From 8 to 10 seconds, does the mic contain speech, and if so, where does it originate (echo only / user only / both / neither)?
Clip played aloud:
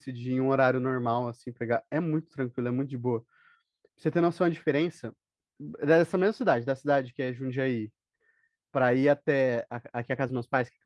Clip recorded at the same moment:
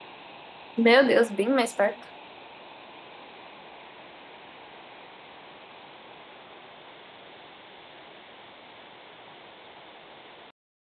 neither